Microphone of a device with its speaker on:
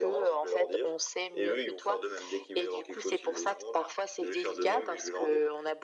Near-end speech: none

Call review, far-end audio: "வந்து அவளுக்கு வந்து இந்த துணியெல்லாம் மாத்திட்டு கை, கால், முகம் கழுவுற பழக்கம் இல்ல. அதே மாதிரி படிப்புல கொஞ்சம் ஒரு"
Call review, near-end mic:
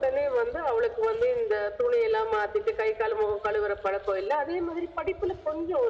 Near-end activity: none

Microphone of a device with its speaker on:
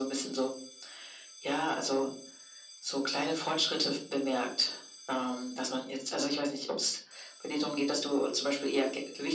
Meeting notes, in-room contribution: none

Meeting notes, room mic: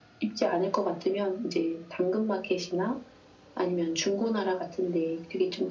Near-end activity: none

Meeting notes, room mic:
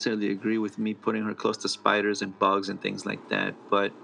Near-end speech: none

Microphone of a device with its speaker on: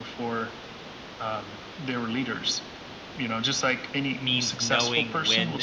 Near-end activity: present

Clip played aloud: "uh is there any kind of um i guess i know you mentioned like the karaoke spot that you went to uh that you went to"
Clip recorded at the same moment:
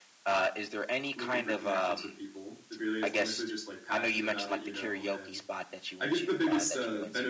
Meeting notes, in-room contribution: present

